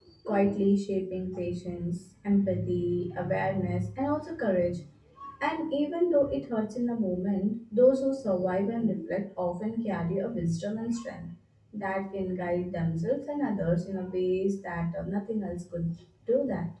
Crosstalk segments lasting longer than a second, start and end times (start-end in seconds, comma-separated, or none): none